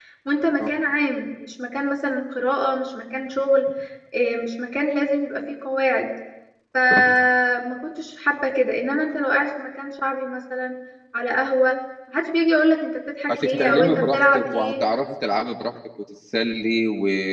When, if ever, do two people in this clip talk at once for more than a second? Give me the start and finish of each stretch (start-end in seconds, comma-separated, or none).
13.3-14.8